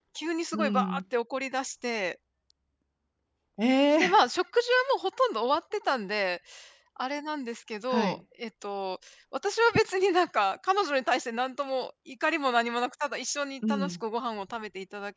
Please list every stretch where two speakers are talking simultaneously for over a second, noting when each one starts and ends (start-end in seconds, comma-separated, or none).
none